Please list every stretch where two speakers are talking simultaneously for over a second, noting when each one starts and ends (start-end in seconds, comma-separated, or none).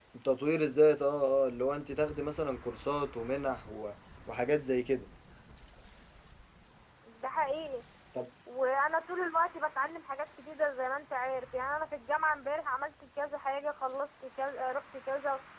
none